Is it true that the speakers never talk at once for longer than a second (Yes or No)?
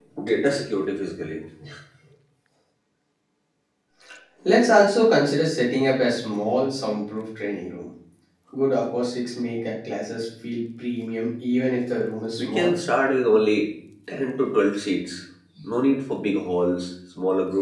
Yes